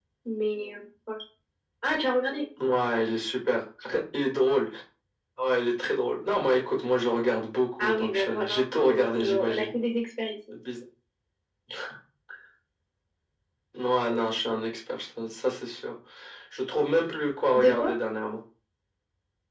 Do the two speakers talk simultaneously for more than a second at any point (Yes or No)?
Yes